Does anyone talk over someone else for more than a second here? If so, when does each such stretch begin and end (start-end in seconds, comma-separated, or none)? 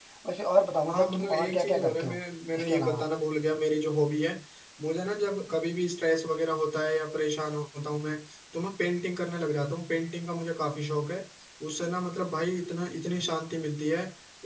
0.9-2.2